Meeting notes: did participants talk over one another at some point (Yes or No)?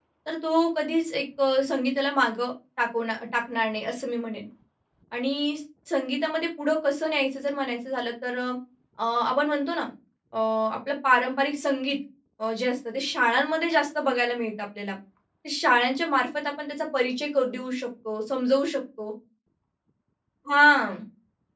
No